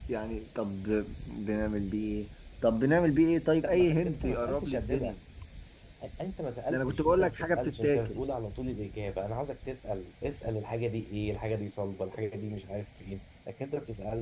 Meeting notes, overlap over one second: present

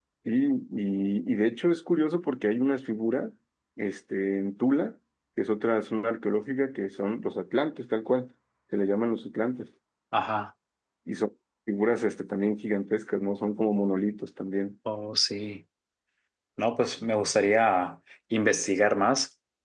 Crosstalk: none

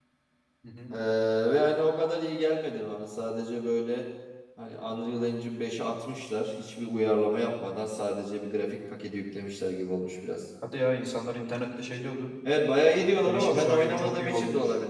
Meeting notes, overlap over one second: present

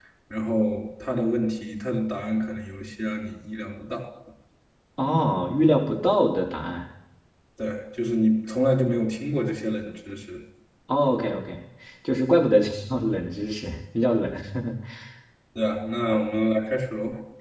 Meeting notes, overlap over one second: none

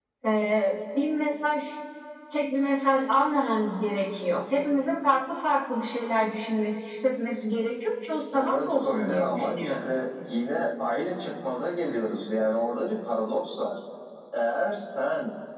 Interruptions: present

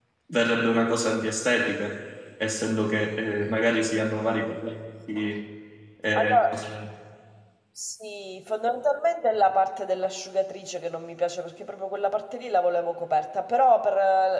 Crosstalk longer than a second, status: none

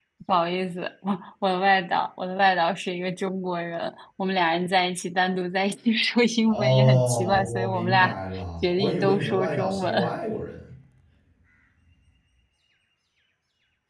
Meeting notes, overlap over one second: present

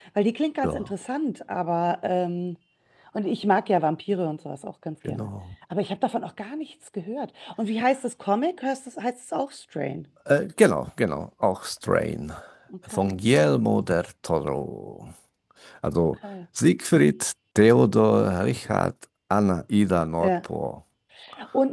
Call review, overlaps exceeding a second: none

